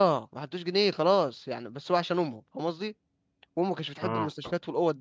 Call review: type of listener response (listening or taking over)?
listening